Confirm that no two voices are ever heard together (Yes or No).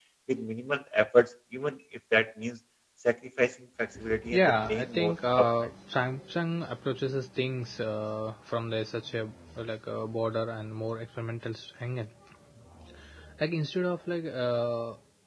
No